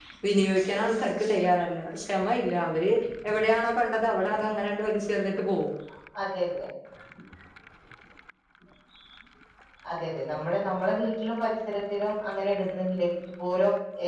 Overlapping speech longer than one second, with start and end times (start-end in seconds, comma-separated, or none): none